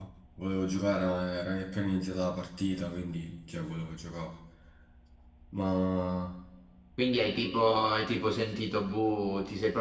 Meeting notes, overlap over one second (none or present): none